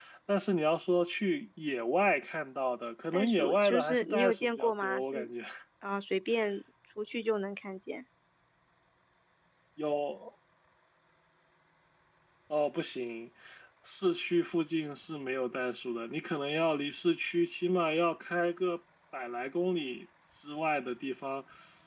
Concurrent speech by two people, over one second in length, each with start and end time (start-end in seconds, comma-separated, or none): 3.1-5.3